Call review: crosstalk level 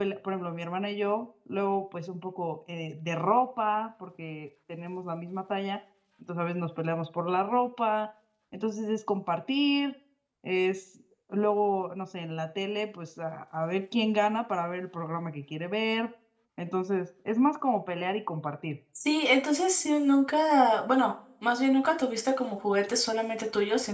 none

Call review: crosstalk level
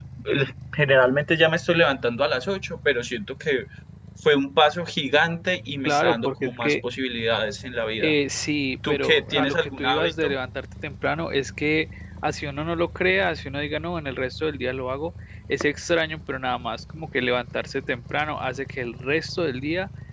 present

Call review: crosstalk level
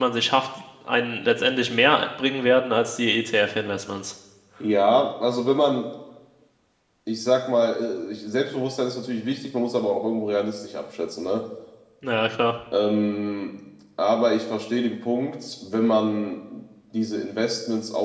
none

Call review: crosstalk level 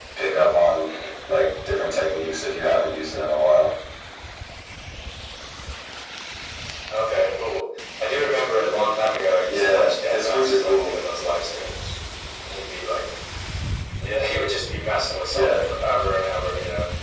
present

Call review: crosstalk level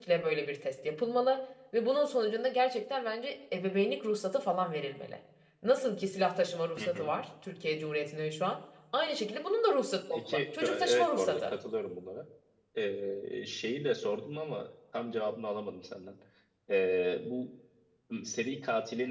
present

